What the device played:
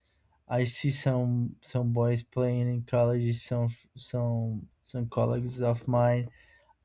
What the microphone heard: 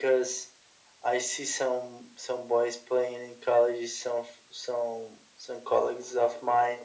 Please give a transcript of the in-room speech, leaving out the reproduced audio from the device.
none

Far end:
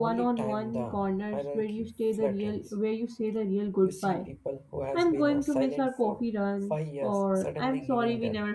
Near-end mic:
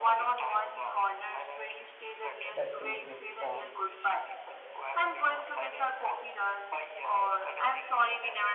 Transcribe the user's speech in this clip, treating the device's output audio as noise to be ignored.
that things with the

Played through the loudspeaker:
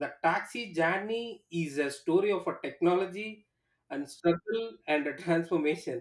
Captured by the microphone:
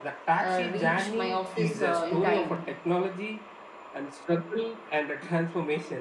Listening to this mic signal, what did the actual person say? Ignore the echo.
uh, reach my office uh, in time

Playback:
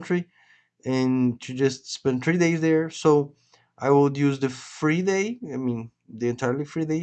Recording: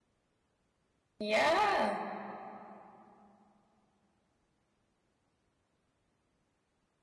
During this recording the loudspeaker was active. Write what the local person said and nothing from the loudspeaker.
Yeah.

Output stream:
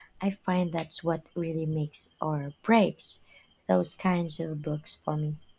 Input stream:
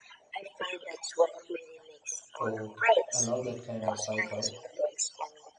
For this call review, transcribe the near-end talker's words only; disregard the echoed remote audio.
Oh, I love that kind of sci fi.

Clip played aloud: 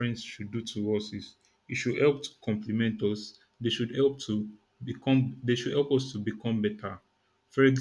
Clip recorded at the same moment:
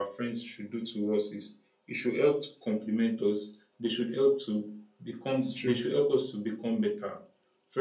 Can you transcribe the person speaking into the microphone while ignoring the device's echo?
it's true.

